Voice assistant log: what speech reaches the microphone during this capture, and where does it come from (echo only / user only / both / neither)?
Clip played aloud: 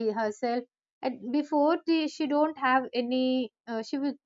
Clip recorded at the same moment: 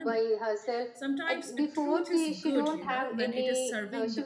both